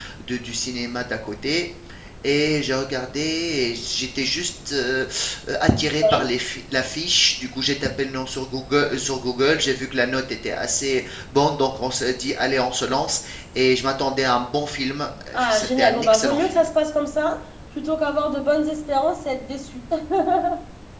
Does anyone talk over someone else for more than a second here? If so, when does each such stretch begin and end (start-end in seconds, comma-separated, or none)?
15.3-16.7